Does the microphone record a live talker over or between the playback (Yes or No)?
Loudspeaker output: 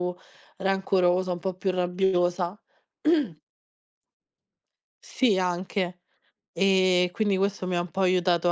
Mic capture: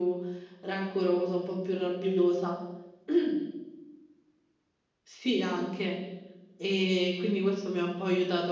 No